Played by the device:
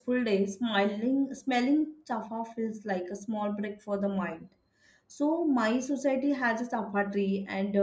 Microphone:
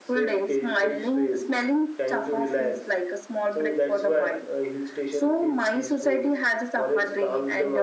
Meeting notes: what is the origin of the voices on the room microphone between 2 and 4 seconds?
both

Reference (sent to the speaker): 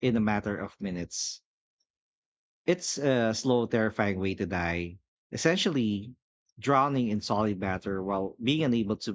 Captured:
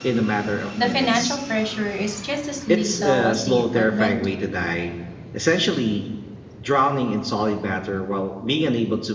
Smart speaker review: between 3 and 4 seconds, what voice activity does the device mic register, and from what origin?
both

